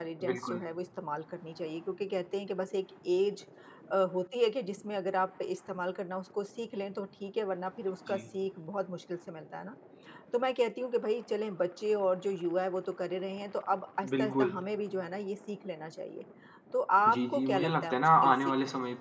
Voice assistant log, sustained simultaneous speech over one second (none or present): present